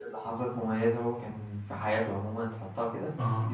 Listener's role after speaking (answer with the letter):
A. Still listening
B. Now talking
A